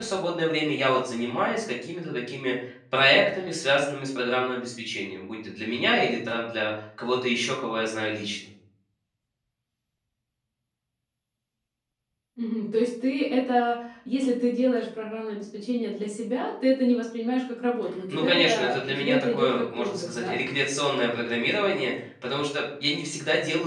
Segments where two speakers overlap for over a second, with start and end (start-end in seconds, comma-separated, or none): 18.1-20.4